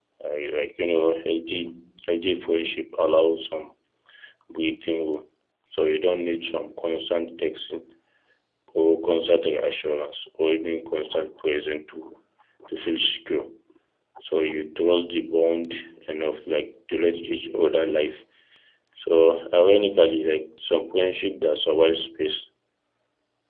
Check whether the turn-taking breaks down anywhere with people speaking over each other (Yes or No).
No